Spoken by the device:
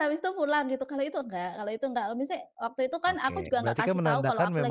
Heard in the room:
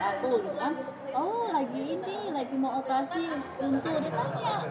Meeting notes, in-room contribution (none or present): present